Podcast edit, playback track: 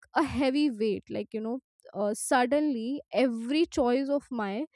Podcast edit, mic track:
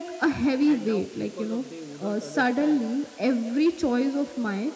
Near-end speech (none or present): present